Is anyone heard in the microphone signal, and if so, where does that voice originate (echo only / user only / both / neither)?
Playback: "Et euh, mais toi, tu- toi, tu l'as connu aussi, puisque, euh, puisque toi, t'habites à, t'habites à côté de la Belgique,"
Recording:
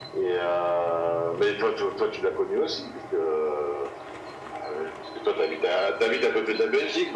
echo only